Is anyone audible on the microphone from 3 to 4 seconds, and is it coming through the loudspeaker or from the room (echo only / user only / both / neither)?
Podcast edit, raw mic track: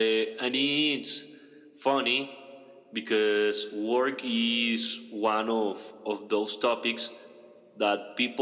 echo only